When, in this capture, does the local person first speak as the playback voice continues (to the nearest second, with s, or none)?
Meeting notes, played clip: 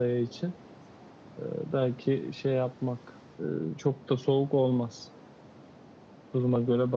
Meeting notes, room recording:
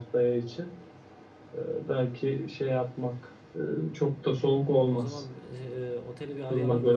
5 s